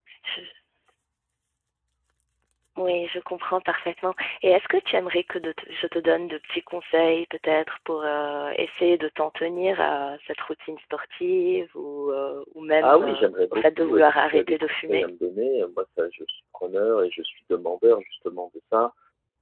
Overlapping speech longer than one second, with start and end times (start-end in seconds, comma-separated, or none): 12.8-15.1